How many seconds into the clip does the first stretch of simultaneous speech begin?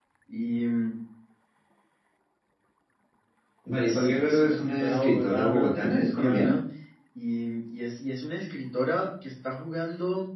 4 s

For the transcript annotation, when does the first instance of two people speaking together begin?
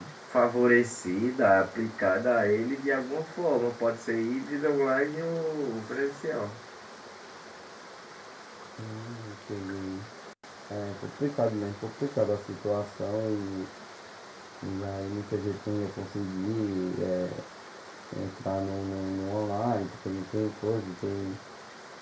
none

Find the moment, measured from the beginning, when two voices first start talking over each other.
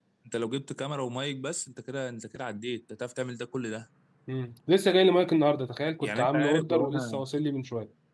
6 s

